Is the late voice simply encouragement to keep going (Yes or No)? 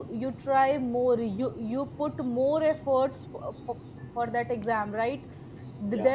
Yes